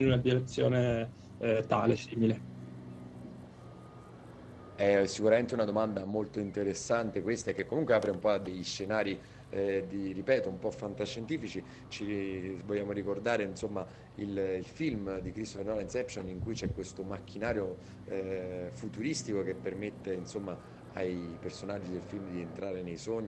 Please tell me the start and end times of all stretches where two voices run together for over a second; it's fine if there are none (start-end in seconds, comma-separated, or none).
none